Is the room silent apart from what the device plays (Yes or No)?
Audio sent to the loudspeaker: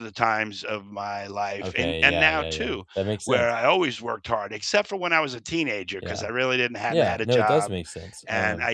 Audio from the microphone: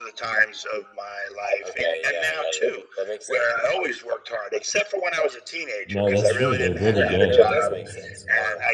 No